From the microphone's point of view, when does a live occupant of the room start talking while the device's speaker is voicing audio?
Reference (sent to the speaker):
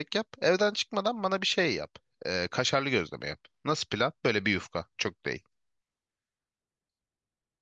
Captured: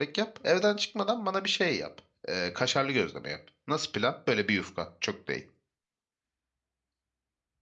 none

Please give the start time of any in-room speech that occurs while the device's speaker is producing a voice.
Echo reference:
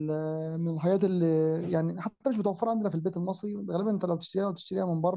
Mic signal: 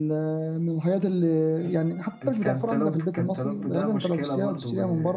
2.2 s

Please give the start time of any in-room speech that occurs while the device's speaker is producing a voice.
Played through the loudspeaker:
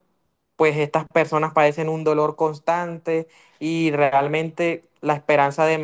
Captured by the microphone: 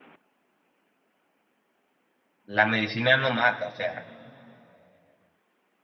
2.4 s

